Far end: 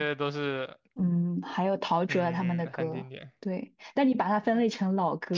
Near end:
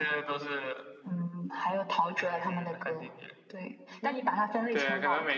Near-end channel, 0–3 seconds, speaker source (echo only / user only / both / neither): echo only